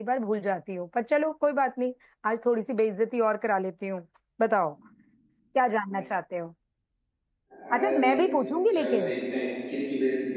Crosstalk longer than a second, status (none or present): none